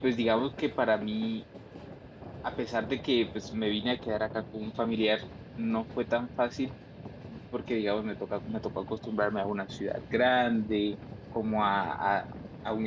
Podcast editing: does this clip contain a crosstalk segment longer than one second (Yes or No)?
No